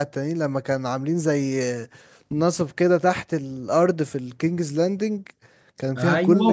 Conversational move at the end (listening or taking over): taking over